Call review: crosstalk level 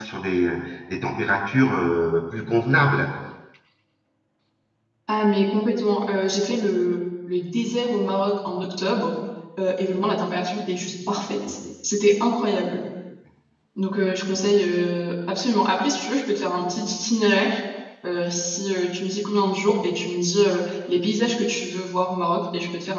none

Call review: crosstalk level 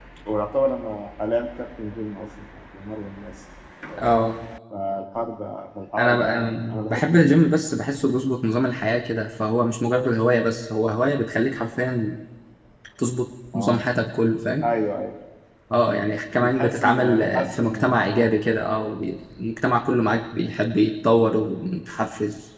present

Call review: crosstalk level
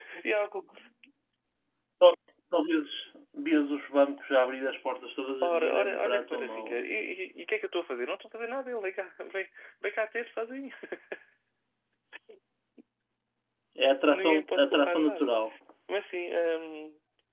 present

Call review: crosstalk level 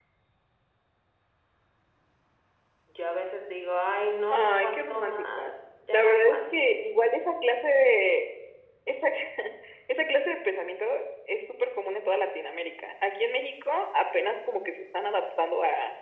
present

